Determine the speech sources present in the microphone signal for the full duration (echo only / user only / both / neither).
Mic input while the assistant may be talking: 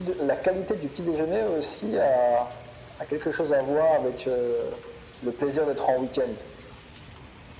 echo only